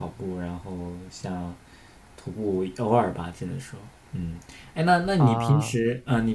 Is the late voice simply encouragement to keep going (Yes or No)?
Yes